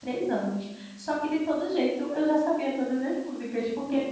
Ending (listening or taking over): listening